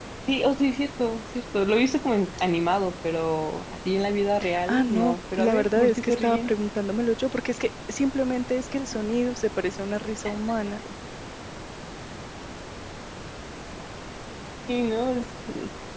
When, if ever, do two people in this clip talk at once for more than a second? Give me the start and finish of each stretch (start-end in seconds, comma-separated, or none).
4.7-6.5